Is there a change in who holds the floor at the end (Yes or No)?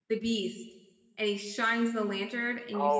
Yes